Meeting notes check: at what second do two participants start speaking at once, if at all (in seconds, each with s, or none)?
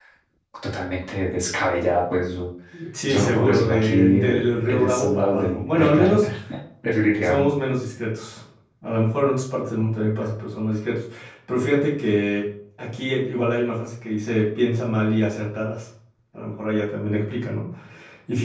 3.1 s